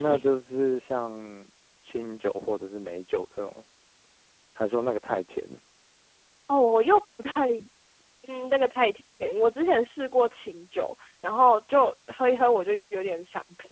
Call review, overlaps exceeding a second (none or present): none